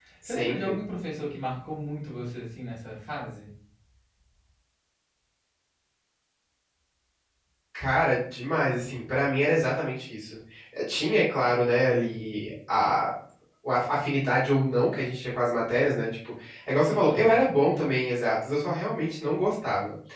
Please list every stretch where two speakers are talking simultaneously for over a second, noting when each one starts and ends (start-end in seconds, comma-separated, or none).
none